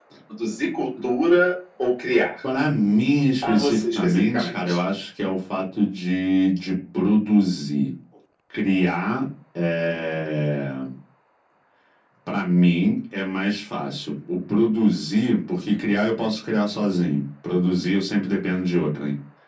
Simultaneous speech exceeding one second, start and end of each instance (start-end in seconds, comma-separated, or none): 3.4-4.8